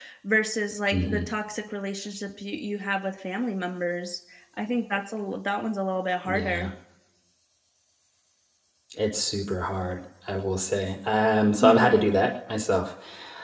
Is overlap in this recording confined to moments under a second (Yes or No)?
Yes